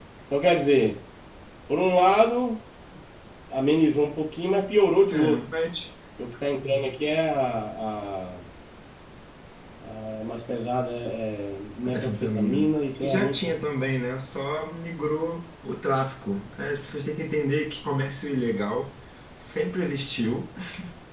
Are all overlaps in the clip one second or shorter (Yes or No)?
No